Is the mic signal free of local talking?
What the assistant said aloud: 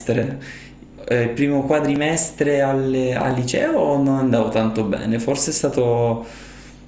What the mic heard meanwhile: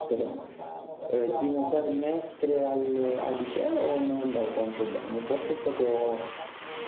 No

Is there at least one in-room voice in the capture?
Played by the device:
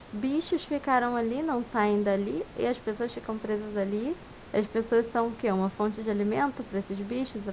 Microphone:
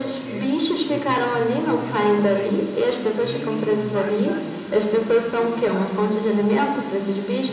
Yes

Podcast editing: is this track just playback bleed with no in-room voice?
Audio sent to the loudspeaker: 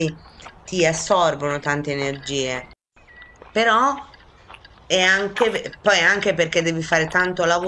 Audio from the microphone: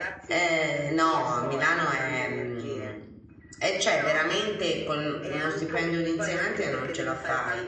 No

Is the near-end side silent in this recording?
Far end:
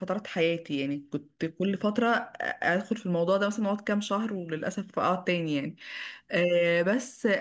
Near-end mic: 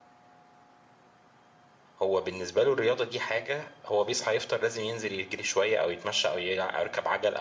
No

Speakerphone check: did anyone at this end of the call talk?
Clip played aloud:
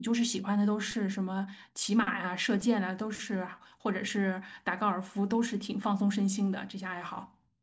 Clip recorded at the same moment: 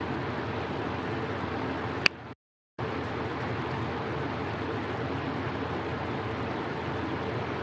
No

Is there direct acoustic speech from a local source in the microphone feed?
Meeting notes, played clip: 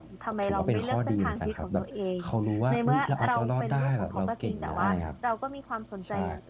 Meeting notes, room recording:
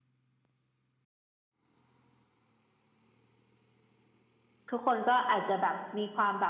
Yes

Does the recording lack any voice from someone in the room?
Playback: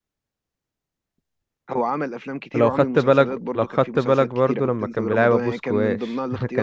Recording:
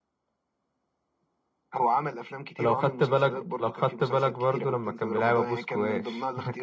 Yes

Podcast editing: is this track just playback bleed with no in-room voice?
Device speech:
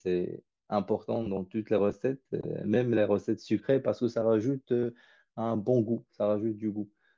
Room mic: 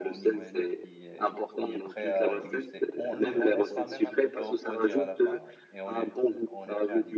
No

